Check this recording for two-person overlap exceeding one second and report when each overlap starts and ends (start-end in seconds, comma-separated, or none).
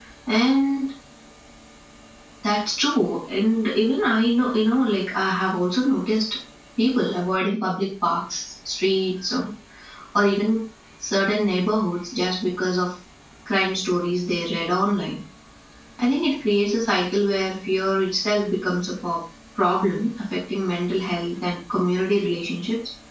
none